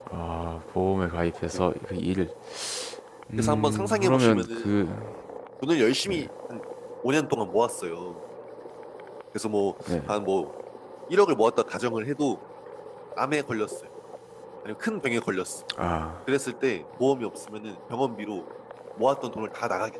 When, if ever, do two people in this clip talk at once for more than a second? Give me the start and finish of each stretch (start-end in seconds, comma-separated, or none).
3.4-4.7